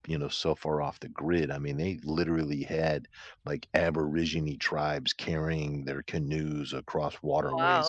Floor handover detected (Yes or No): No